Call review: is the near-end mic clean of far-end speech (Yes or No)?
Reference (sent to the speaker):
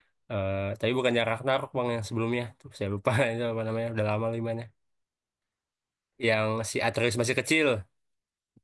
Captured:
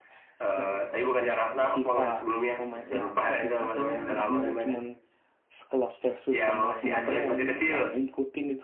No